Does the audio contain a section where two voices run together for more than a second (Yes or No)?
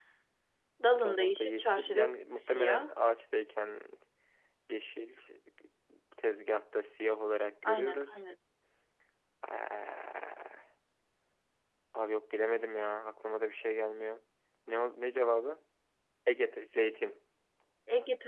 Yes